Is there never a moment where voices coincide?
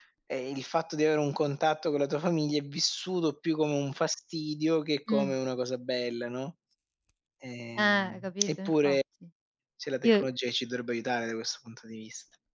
No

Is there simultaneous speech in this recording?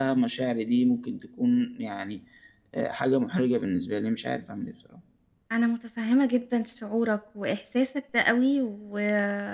No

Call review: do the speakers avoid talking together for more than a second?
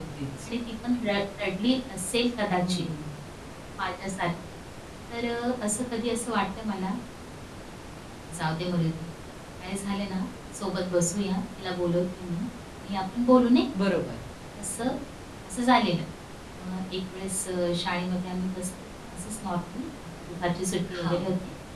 Yes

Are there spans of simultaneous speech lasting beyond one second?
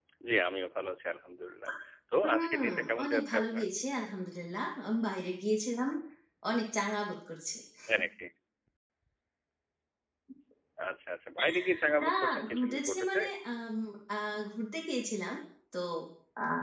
Yes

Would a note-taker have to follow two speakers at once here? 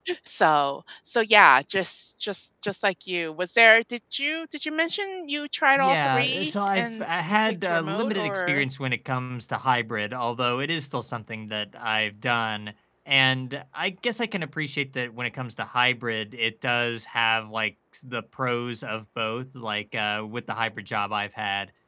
Yes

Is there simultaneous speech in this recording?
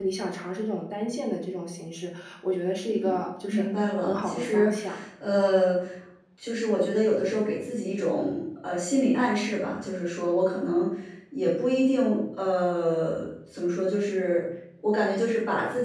Yes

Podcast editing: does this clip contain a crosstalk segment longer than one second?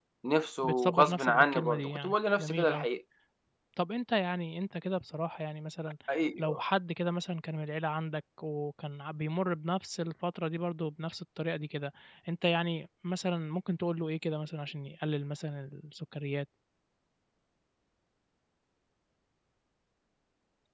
Yes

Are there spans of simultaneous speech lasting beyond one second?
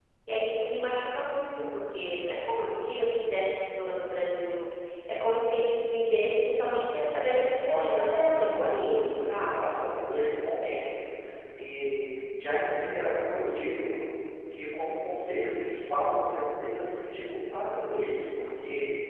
Yes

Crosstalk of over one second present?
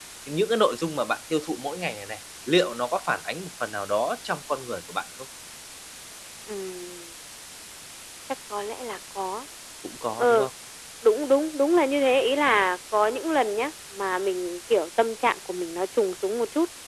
No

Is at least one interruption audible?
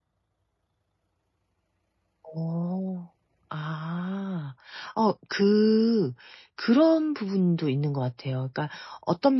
No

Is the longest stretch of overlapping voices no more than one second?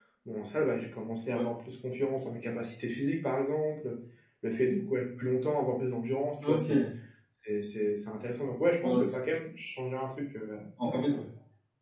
Yes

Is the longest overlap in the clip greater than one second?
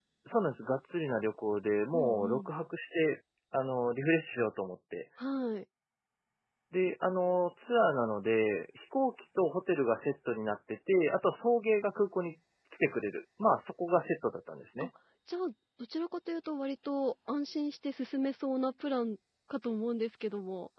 No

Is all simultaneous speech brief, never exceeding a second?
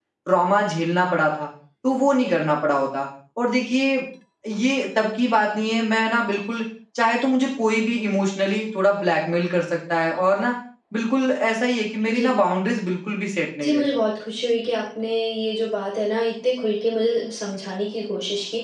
Yes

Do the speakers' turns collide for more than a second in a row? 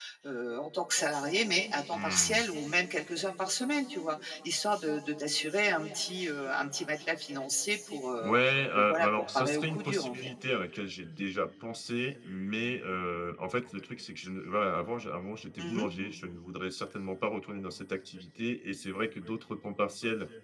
Yes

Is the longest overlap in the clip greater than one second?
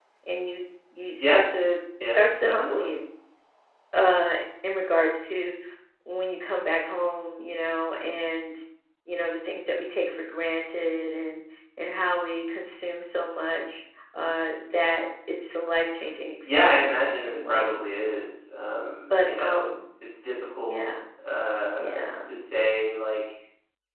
Yes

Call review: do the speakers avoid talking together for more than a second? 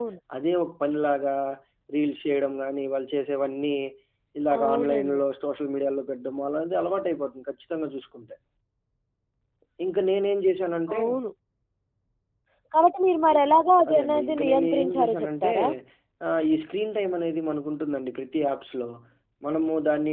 No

